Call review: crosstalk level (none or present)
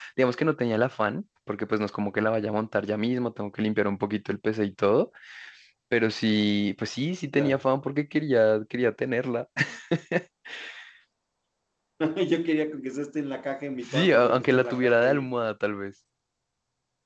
present